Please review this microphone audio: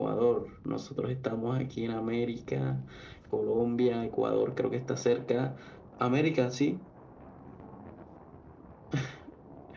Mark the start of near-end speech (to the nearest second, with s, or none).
none